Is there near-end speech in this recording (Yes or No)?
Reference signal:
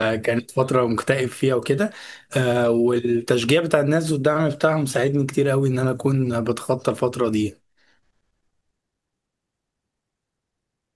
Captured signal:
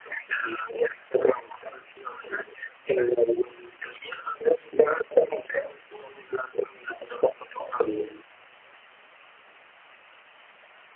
No